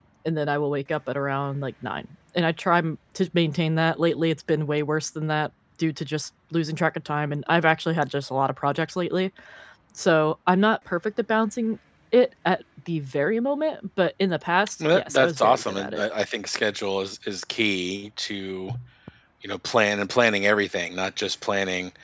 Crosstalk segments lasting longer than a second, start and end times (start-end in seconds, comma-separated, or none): 14.8-16.0